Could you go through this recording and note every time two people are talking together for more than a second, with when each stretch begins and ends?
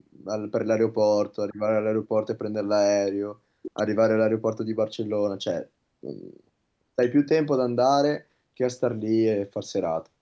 none

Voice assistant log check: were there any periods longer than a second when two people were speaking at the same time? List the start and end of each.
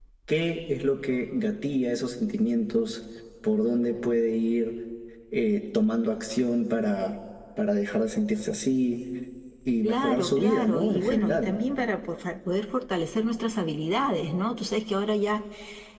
9.8-11.5

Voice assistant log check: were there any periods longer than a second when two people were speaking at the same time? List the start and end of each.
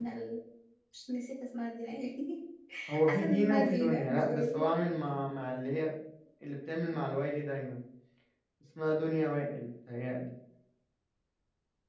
3.0-4.7

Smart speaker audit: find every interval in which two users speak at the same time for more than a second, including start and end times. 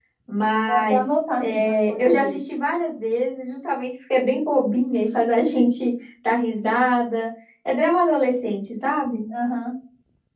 0.5-2.4

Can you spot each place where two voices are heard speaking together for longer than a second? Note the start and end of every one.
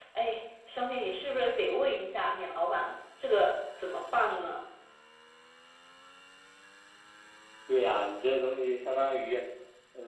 none

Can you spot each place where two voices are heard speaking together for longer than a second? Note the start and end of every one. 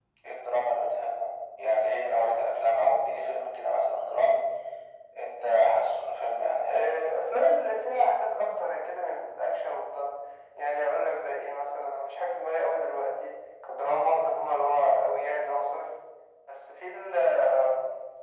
none

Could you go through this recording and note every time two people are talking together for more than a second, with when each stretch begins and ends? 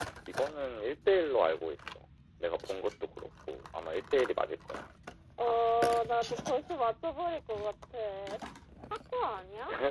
none

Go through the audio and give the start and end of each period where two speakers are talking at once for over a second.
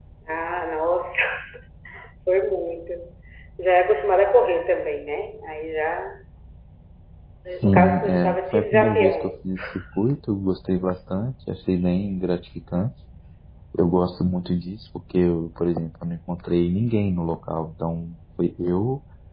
7.6-9.3

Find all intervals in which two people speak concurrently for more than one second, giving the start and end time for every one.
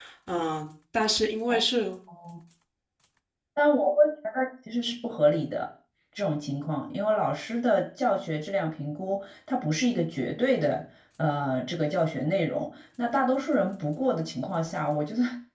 none

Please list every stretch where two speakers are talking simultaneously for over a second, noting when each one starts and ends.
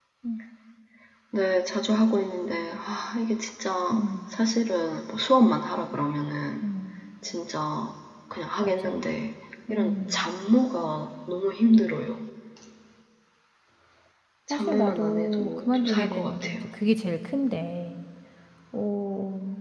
14.5-16.6

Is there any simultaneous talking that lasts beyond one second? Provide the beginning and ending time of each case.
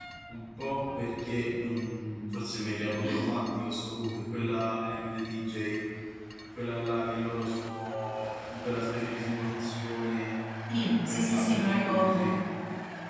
11.1-12.3

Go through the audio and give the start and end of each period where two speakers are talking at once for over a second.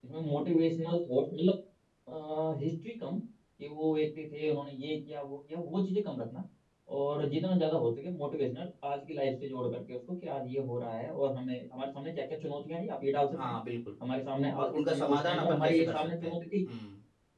14.6-16.3

